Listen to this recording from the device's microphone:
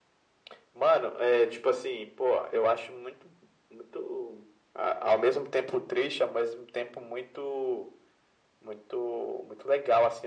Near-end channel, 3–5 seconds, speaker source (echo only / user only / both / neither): echo only